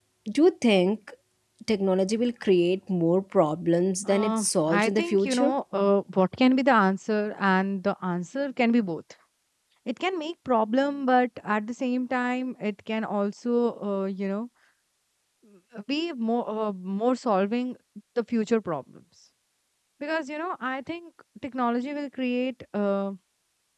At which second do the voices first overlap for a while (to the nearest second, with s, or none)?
4 s